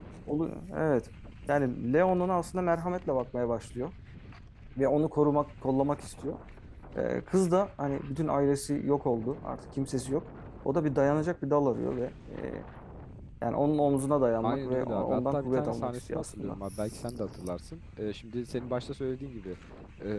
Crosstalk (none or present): present